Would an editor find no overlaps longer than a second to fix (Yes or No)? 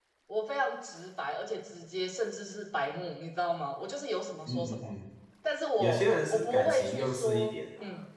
No